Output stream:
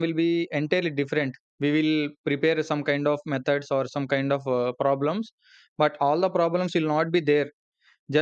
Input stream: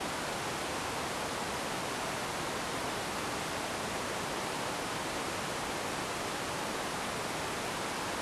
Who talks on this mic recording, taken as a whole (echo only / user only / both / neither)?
neither